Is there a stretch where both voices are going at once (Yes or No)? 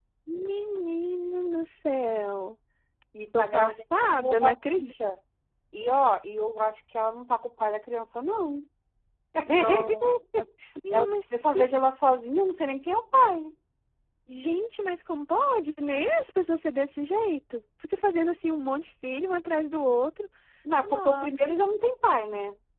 Yes